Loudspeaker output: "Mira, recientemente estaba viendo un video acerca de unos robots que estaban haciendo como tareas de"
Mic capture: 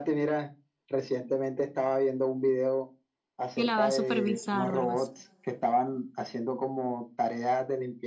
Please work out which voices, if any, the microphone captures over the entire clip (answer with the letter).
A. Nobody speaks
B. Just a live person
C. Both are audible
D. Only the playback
C